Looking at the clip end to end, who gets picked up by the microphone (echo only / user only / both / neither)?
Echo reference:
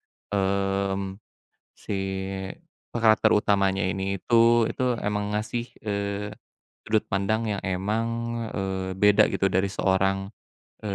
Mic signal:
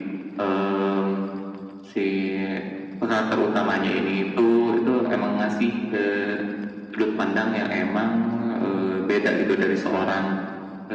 echo only